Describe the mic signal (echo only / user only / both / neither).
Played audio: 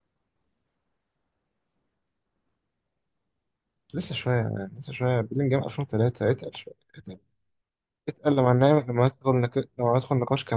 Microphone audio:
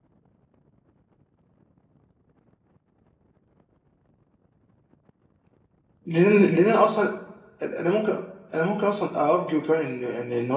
user only